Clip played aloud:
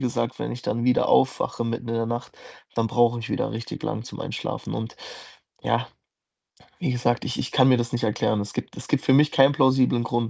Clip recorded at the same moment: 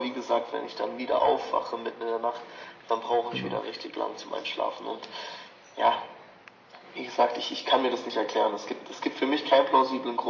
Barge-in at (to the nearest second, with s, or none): 3 s